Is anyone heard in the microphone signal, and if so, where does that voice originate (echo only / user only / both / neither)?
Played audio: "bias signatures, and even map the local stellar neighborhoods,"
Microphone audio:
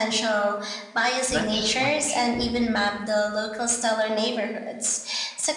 both